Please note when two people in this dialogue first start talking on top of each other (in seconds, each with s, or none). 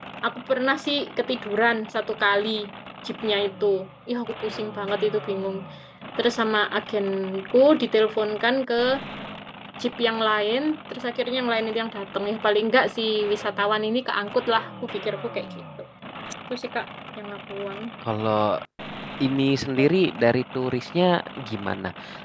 none